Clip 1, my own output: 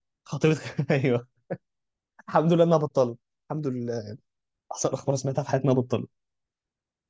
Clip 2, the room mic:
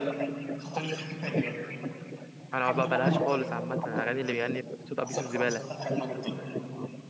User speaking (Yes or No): Yes